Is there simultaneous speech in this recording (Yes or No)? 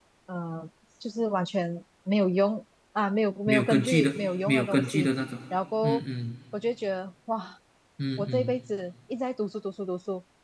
Yes